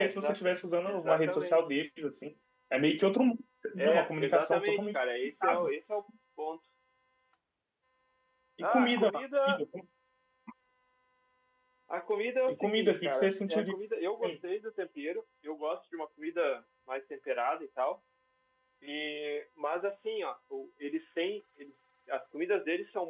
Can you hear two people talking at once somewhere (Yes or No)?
Yes